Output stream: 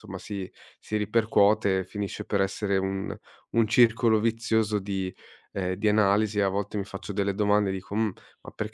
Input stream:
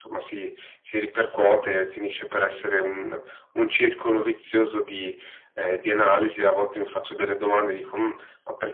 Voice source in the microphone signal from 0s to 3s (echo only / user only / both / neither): echo only